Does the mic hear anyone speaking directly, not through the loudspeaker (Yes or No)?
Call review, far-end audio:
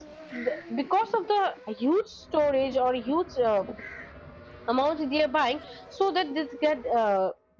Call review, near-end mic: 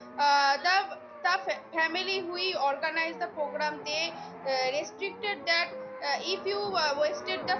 Yes